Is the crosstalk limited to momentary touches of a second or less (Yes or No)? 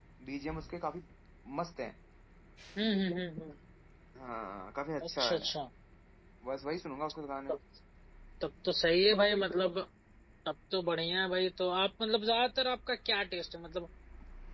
Yes